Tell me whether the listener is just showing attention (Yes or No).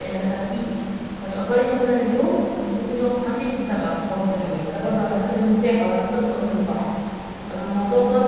Yes